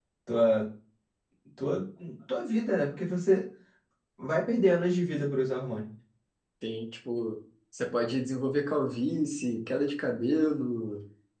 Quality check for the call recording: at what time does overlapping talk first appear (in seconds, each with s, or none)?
none